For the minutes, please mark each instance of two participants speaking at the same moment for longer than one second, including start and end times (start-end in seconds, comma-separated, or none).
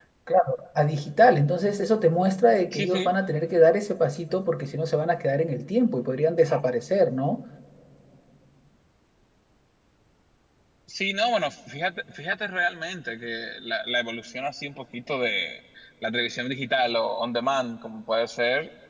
none